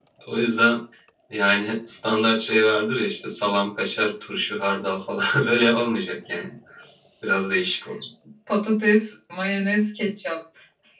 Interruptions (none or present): none